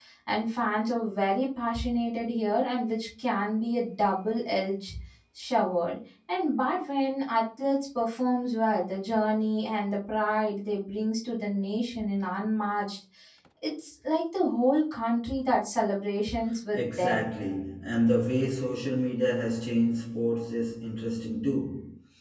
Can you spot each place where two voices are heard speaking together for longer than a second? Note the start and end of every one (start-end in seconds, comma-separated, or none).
none